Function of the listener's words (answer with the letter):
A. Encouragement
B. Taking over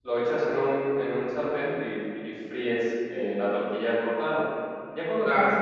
A